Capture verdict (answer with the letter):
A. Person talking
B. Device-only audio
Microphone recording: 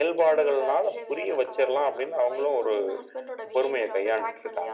B